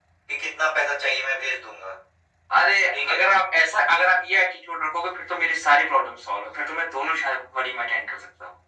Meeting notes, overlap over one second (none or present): none